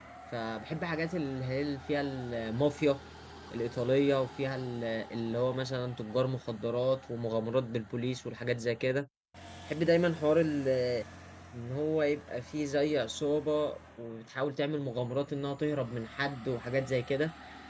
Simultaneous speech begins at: none

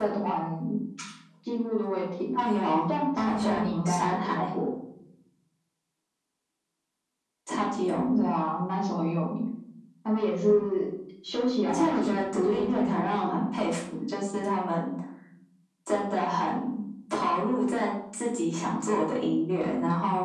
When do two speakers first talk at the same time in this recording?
3.2 s

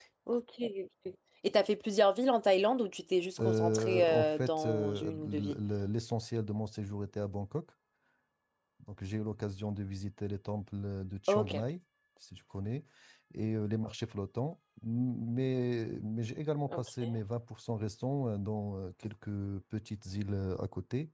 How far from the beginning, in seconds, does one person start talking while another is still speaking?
3.4 s

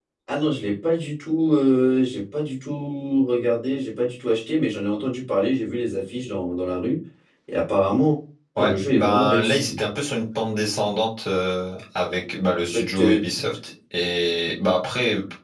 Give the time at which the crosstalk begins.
8.6 s

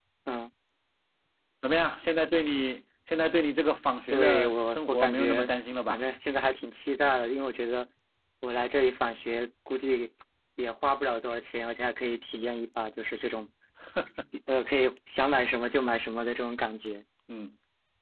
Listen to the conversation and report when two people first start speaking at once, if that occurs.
4.1 s

